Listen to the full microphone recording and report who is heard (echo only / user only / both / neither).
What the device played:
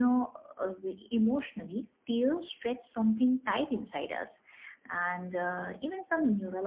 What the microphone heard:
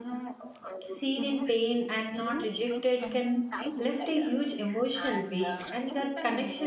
both